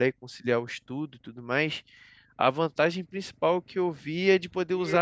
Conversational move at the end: listening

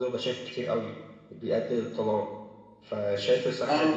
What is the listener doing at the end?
listening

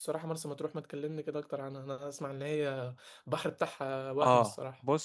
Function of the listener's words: taking over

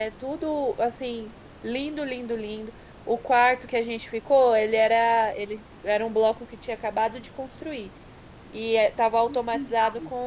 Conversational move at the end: listening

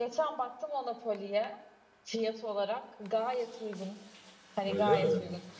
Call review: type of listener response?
listening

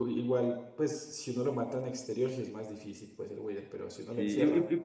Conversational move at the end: taking over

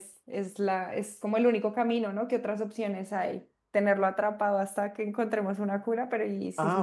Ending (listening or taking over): taking over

